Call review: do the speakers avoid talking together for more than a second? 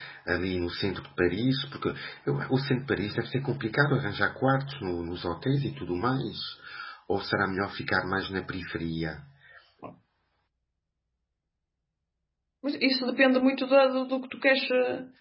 Yes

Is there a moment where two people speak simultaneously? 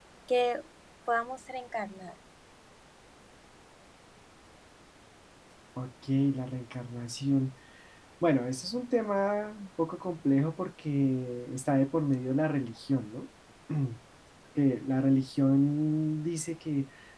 No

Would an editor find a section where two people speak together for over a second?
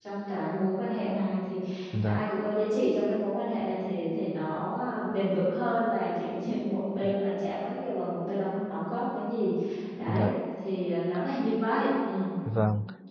No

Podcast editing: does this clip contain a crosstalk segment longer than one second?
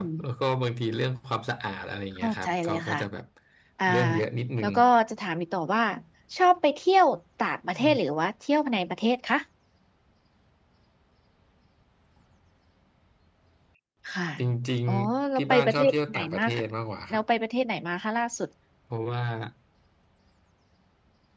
Yes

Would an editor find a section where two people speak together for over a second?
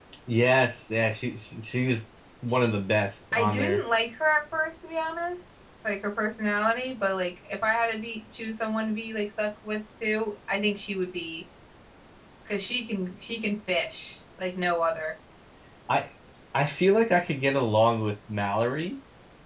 No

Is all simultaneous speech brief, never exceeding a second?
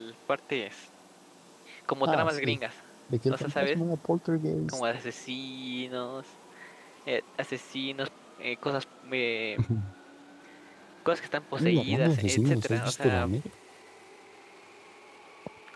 No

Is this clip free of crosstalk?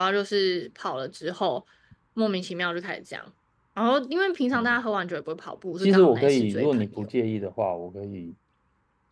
No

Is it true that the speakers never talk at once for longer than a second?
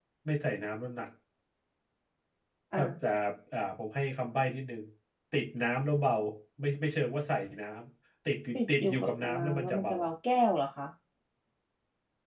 No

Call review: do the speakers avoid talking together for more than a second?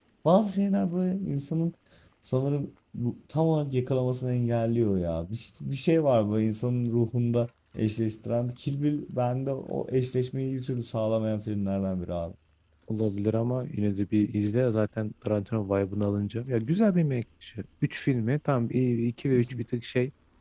Yes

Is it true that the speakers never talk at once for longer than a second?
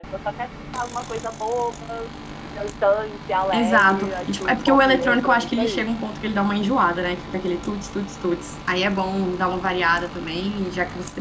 No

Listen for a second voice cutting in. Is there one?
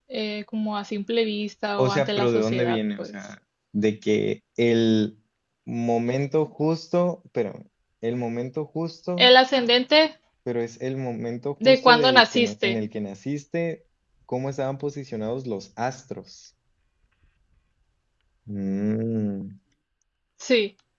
Yes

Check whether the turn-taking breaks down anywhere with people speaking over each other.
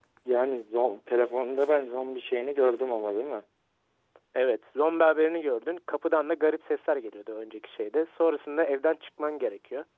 No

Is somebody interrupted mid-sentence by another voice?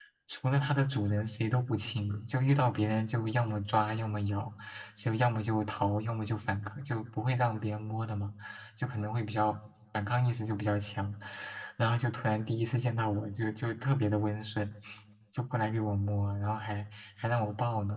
No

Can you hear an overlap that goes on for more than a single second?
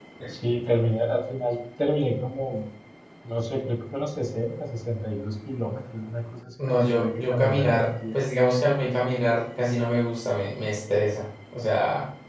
Yes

